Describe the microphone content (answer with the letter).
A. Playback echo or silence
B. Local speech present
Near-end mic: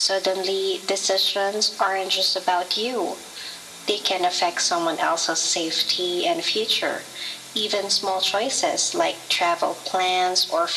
A